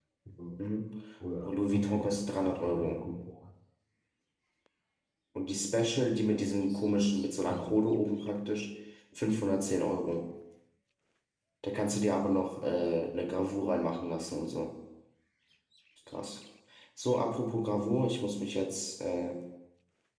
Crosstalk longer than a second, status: present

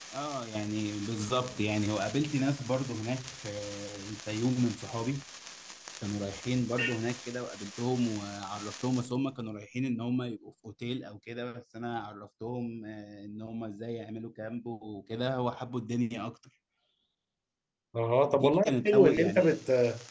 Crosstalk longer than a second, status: present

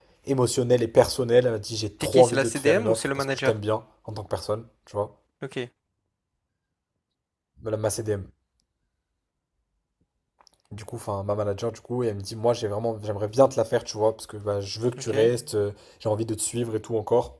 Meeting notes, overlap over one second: present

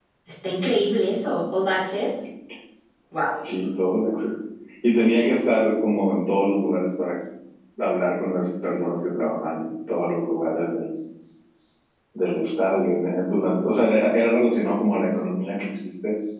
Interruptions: none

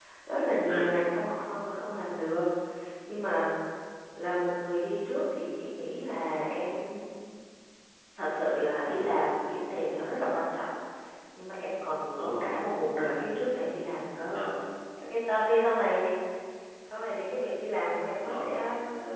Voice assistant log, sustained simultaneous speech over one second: none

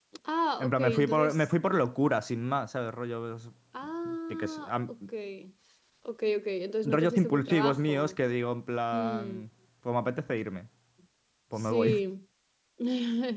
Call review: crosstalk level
present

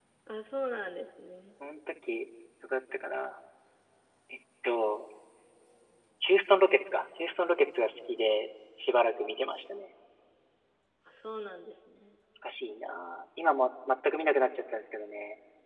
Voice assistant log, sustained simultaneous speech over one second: none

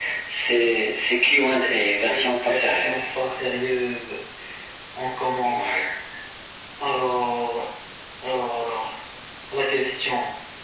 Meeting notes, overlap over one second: present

